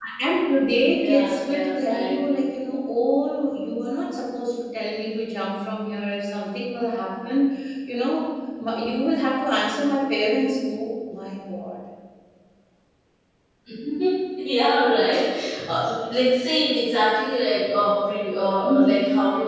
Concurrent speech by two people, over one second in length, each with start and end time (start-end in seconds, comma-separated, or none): 1.0-2.3